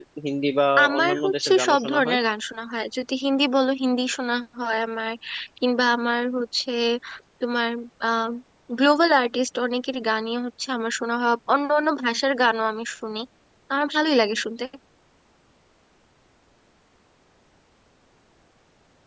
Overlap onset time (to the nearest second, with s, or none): 1 s